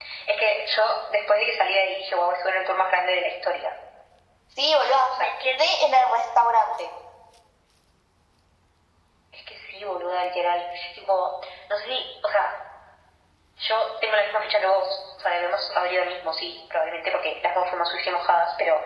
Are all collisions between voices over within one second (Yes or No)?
Yes